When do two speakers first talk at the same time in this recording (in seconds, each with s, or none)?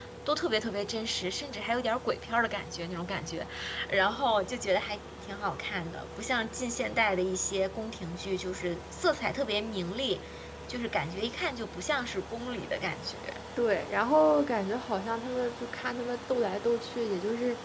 none